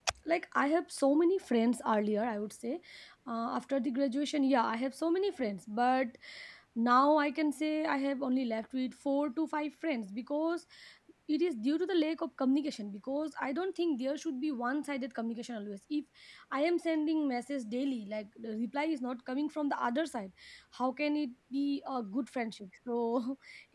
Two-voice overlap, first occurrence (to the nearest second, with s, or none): none